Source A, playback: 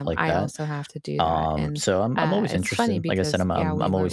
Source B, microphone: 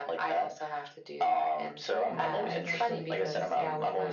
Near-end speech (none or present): present